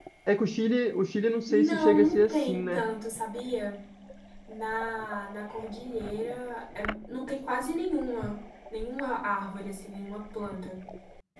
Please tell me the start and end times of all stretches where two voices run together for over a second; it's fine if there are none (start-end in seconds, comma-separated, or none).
1.5-2.8